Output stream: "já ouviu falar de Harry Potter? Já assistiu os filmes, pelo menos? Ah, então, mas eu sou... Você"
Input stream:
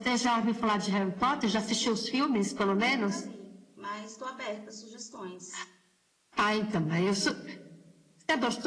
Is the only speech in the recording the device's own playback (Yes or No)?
No